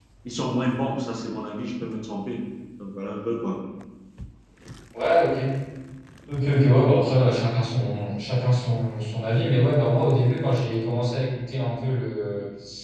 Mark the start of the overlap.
none

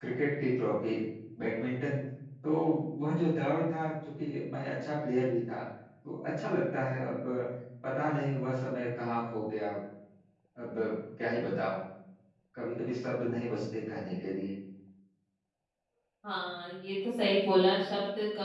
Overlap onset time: none

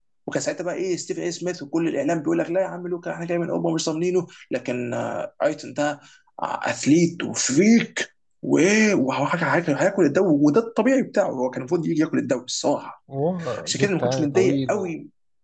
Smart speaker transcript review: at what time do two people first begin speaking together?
14 s

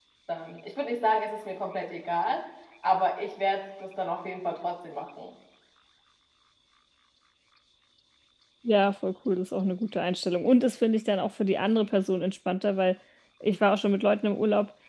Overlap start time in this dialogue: none

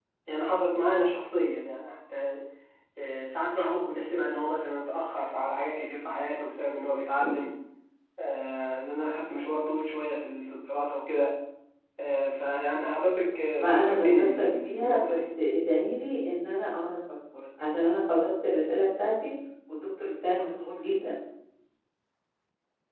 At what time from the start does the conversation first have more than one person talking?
14 s

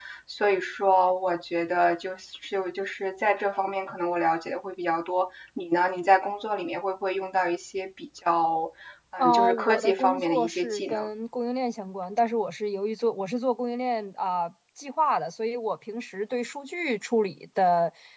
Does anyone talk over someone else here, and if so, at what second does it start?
9 s

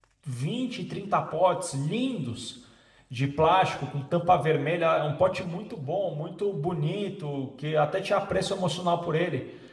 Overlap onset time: none

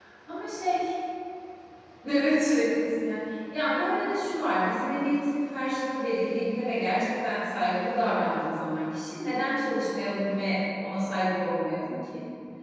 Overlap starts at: none

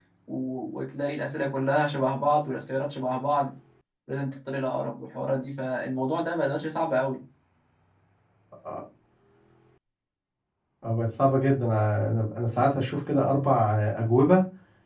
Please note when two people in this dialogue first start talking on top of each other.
none

